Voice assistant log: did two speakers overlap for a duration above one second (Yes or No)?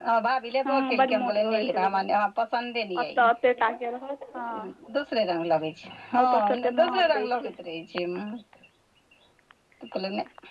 Yes